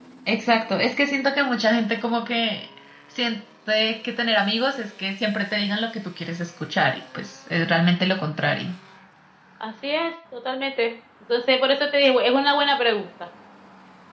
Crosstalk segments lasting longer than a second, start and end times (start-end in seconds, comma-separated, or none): none